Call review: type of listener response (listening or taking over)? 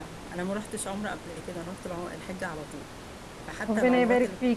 taking over